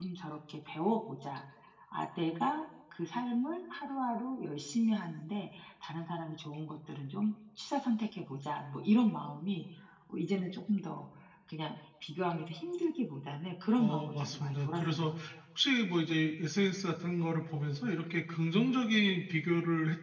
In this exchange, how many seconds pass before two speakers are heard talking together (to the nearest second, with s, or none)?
14 s